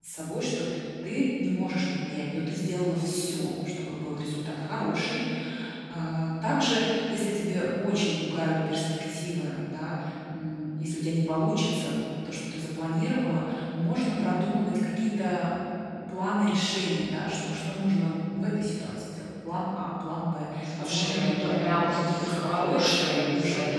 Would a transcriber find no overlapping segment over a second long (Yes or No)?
No